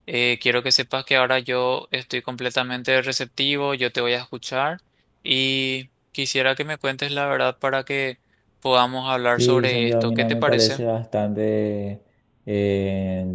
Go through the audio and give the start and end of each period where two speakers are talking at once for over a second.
9.4-10.8

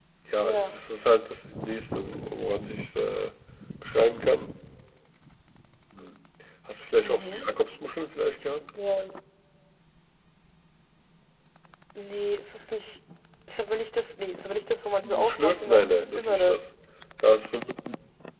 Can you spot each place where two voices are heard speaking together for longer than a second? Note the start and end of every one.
15.0-16.6

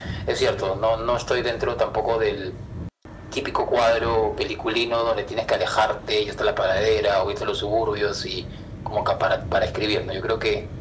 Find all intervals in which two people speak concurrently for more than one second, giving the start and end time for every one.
none

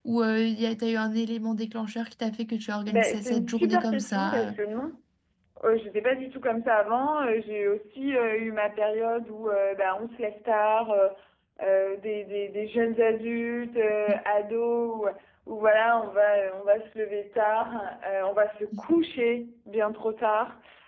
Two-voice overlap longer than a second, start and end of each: 2.9-4.5

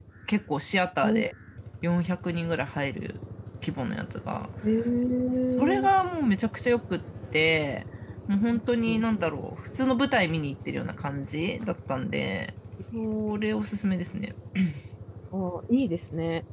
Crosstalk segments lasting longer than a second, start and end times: none

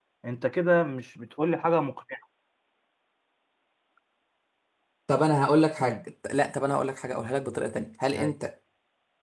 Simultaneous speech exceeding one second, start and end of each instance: none

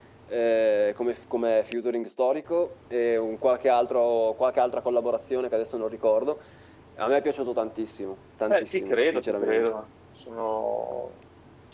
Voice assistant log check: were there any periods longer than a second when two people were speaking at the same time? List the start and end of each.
8.5-9.7

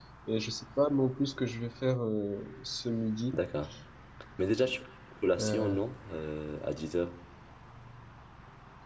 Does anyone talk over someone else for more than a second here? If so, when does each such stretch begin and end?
none

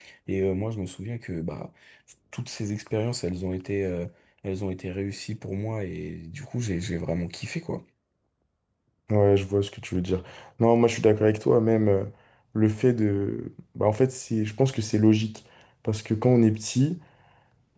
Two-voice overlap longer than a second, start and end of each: none

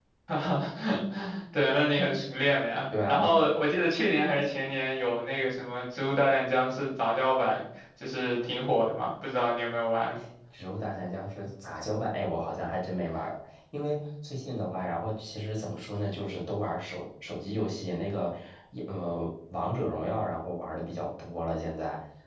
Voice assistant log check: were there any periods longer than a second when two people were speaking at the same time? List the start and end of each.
none

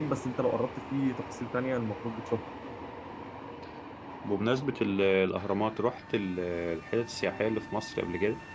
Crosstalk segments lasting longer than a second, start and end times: none

